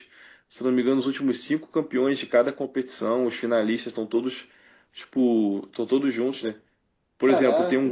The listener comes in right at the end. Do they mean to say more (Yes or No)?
No